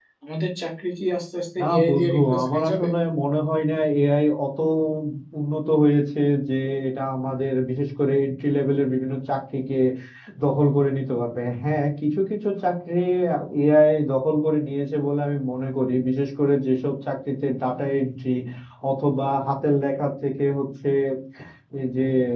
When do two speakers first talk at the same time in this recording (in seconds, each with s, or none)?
1.6 s